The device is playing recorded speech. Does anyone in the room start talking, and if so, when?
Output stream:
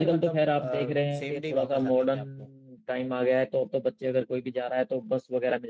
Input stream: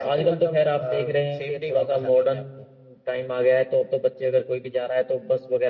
none

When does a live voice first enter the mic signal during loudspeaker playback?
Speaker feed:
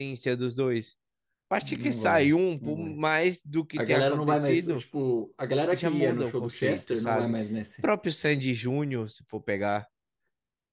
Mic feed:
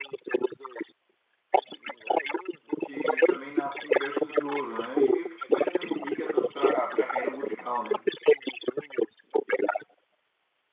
2.8 s

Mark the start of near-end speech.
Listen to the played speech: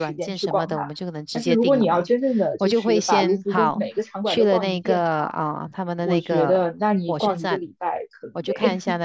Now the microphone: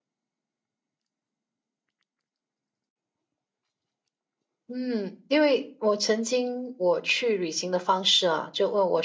4.7 s

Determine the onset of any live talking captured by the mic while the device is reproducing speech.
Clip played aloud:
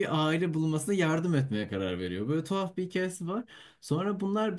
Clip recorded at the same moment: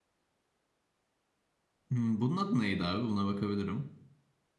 1.9 s

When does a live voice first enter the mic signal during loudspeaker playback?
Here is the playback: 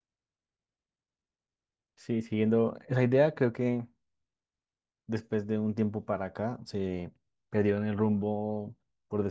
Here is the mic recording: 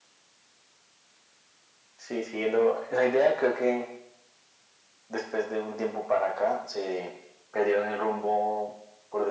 none

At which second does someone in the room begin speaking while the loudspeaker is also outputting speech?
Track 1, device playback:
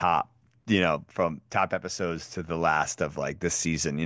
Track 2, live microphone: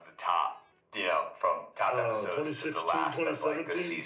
1.9 s

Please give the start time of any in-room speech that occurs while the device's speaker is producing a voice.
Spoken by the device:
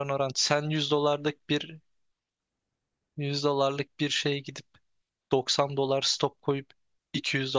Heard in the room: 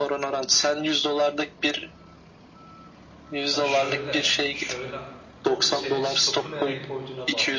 3.5 s

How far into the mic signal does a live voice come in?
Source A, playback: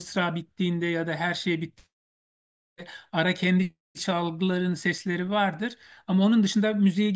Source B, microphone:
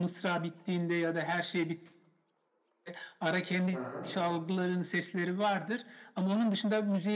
3.7 s

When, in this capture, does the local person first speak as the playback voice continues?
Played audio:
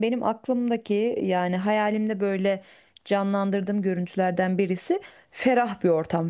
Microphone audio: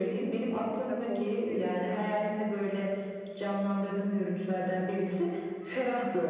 0.7 s

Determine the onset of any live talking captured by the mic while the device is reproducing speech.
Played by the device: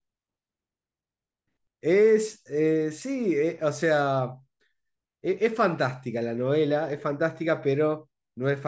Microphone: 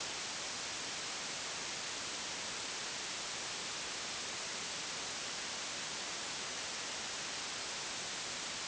none

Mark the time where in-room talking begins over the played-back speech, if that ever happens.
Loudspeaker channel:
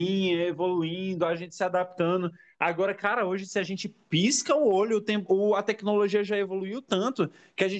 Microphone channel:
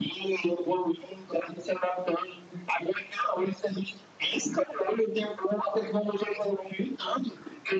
none

